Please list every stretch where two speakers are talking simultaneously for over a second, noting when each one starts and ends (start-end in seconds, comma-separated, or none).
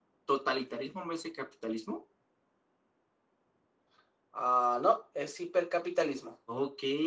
none